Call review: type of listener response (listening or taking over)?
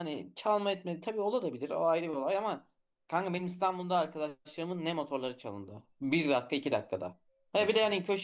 listening